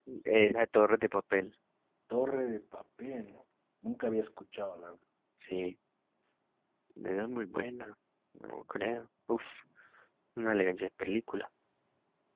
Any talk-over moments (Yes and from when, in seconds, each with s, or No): No